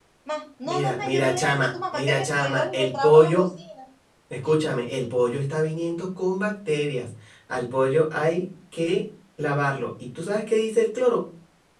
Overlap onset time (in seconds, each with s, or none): 0.6 s